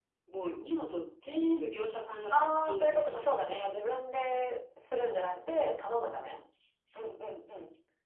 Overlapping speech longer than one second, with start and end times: 2.3-3.7

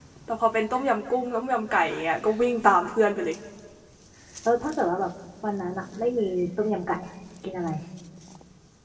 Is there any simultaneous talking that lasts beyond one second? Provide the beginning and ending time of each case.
none

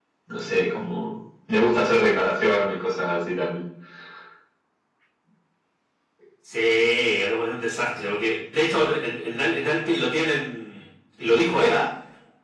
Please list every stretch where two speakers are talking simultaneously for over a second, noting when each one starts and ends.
none

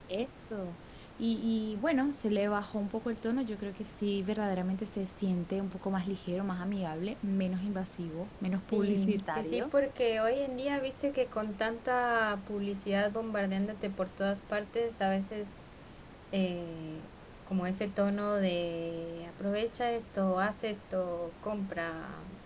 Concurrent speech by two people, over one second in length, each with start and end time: 8.5-9.7

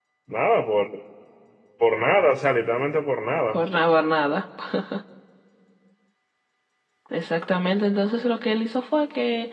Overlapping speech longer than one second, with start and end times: none

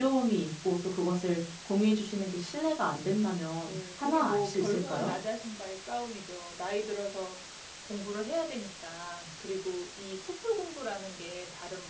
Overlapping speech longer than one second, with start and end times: 3.6-5.1

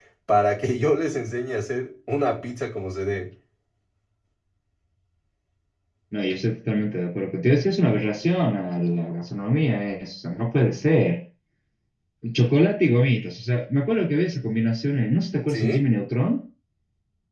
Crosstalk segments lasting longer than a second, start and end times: none

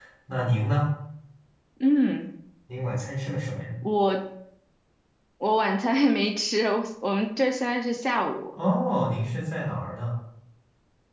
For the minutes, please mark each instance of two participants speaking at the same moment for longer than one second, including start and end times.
none

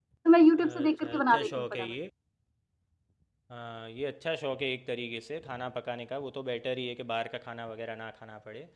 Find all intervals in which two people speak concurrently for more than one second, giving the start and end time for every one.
0.6-1.9

